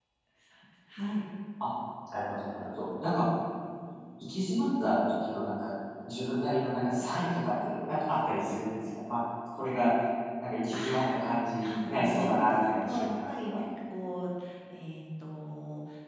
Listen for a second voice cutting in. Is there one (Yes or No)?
Yes